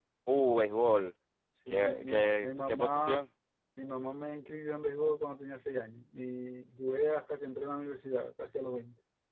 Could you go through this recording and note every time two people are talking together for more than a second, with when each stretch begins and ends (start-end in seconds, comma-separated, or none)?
1.7-3.2